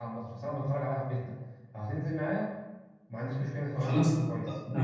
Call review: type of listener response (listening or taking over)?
taking over